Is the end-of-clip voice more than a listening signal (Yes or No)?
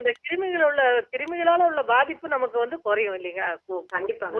Yes